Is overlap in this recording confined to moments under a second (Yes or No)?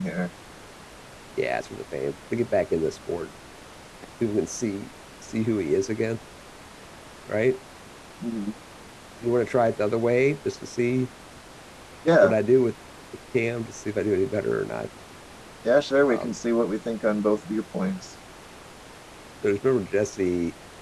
Yes